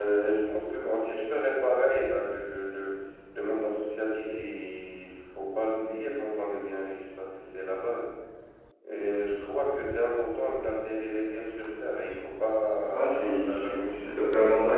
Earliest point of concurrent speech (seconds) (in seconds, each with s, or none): 12.9 s